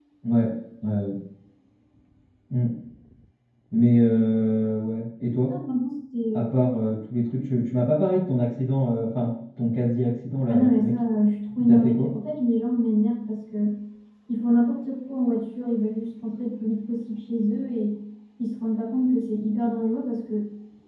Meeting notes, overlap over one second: none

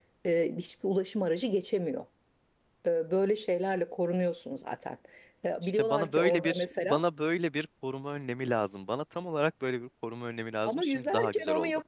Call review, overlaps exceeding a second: present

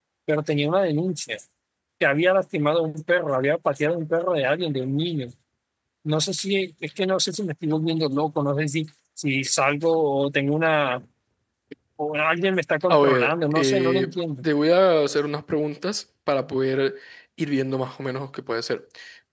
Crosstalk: present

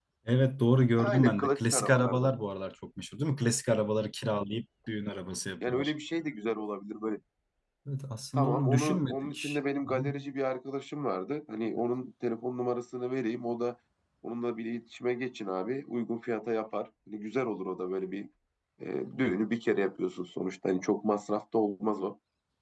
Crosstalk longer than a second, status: present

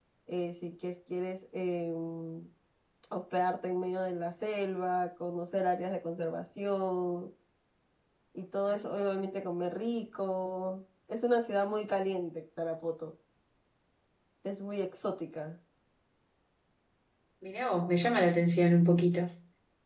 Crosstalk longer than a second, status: none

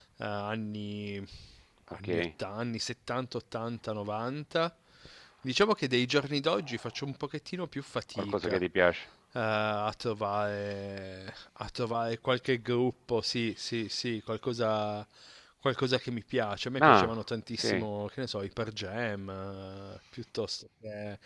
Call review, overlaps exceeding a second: none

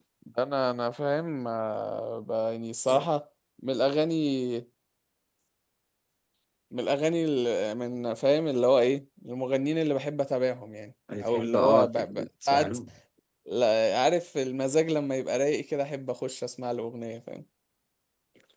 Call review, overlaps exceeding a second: present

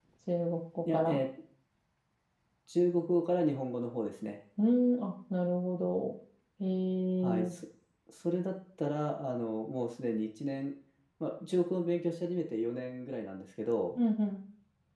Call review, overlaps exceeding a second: none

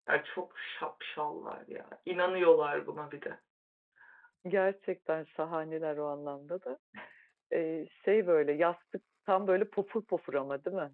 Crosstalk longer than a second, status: none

